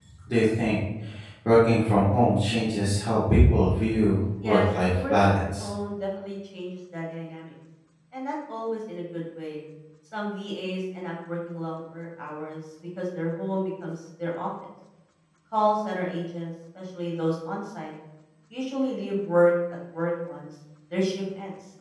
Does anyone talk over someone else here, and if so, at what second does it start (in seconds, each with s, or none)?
4.4 s